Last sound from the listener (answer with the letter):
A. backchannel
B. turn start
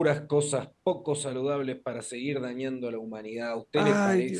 B